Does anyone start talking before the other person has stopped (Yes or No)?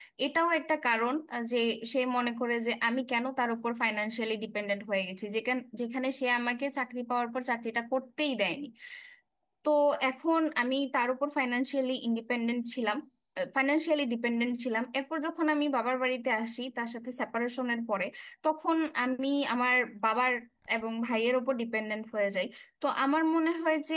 No